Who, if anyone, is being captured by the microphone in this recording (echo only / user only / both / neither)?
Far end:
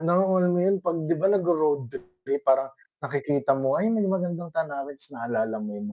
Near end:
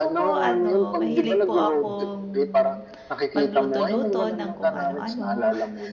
both